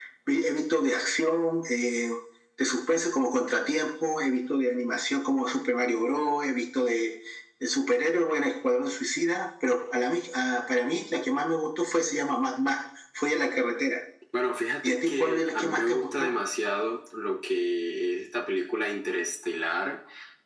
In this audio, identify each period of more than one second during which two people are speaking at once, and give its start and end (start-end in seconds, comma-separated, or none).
14.8-16.3